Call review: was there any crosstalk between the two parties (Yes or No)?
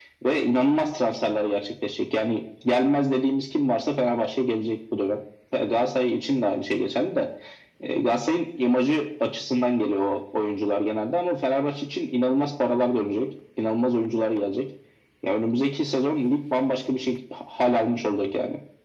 No